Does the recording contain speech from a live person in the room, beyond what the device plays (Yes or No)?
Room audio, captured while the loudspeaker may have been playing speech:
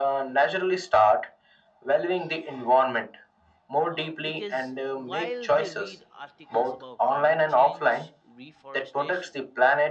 Yes